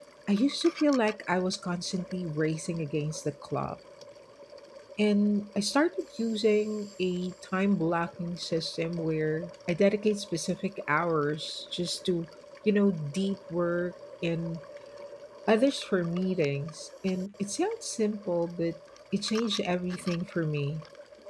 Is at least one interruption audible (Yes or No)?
No